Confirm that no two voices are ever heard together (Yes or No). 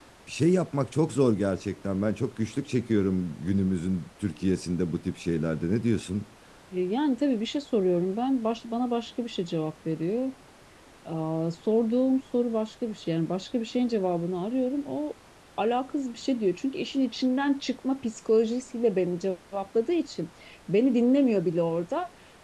Yes